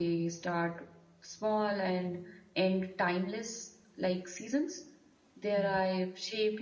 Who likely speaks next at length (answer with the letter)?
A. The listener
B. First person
B